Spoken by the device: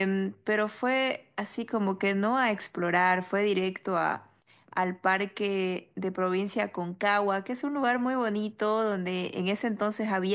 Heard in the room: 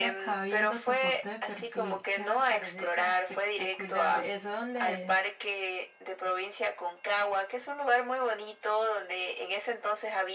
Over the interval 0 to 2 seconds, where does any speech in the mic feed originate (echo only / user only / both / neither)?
both